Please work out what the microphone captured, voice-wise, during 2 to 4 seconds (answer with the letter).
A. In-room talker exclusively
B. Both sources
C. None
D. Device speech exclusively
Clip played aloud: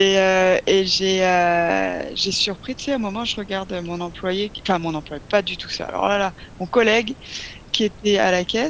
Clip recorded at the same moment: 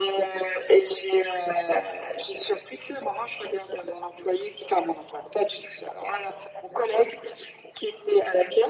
D